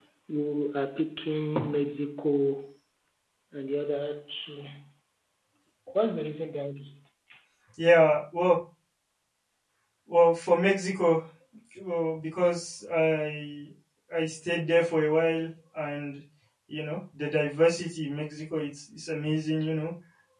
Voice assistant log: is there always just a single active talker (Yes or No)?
Yes